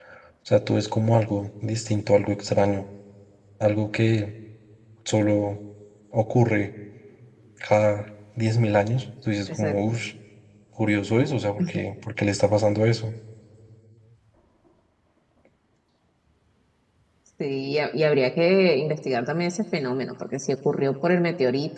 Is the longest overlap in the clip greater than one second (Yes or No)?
No